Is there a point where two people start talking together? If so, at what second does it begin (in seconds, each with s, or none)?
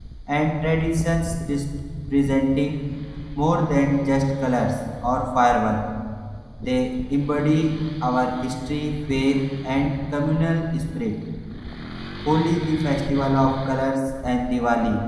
none